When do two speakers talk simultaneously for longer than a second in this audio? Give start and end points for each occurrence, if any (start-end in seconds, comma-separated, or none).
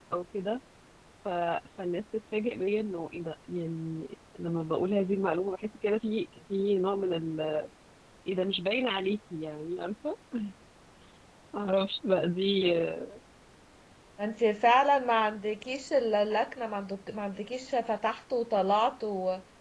none